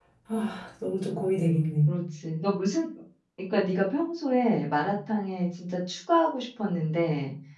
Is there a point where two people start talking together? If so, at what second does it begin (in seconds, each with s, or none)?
none